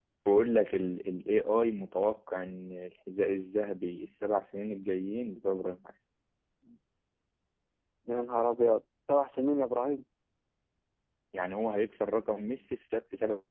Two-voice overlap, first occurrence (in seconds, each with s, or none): none